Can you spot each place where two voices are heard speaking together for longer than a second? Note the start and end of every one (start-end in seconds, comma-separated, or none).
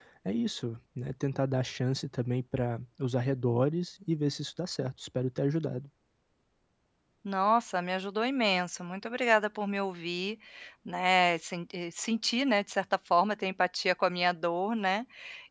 none